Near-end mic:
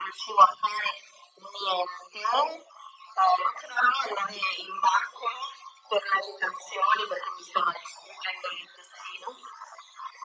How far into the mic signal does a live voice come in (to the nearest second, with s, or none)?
none